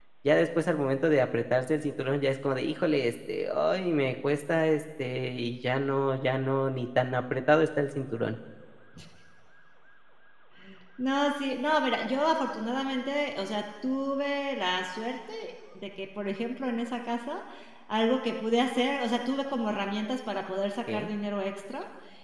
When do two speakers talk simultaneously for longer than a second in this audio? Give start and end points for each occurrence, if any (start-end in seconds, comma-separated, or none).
none